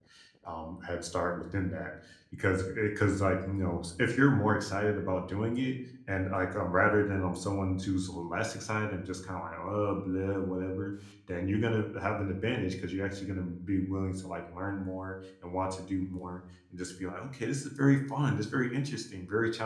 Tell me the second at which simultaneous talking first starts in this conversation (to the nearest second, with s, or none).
none